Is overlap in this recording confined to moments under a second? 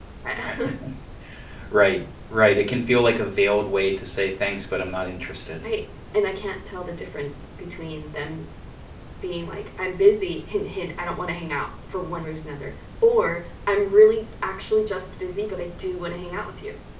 Yes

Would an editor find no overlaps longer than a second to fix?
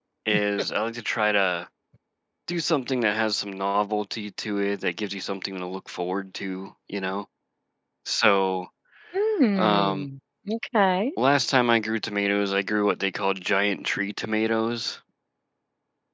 Yes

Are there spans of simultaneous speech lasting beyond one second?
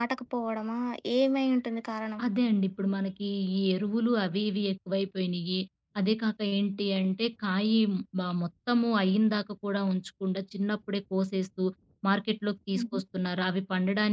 No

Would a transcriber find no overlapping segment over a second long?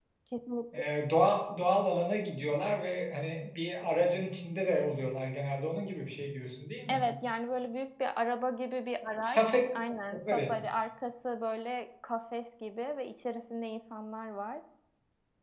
Yes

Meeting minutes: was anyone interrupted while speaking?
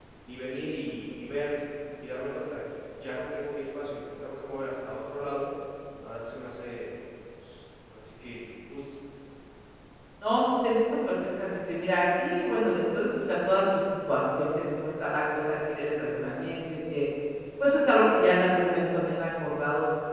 No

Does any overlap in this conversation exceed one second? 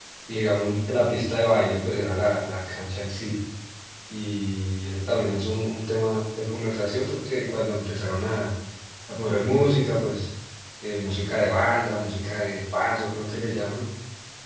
No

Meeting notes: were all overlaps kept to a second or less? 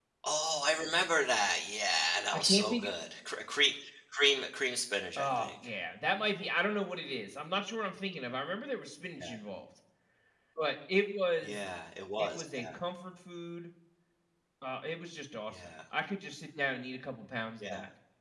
Yes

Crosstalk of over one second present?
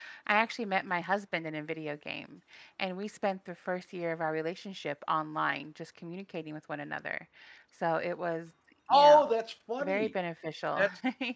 No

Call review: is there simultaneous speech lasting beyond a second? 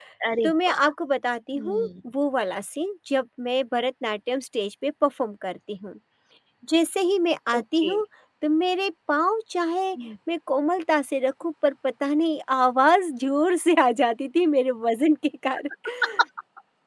No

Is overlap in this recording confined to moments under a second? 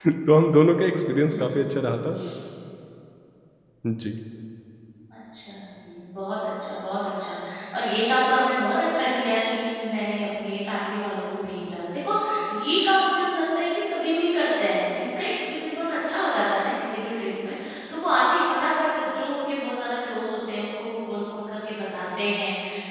Yes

